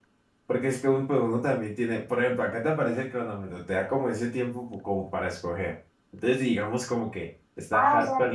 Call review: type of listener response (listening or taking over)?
taking over